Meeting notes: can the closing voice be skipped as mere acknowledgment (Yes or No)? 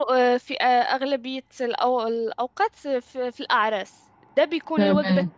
Yes